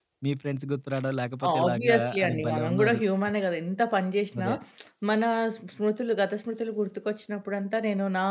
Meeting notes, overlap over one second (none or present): present